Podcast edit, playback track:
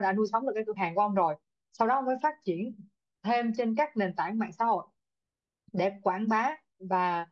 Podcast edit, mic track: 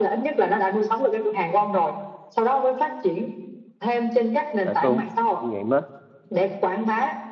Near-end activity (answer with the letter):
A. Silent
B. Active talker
B